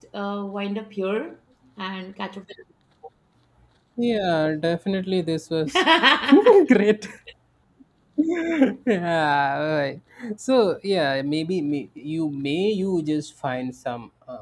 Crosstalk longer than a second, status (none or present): none